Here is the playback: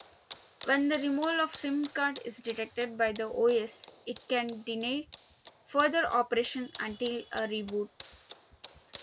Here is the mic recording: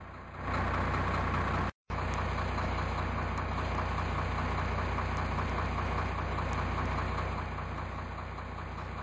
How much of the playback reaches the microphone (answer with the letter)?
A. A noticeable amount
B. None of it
B